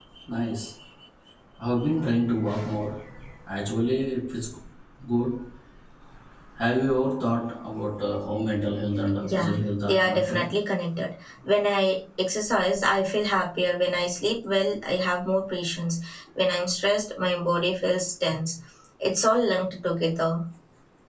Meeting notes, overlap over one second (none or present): present